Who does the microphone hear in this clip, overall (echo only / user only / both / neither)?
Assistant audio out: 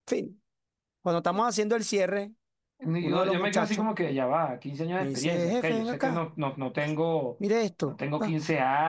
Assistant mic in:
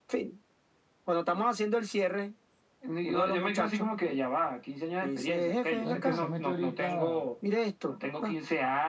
both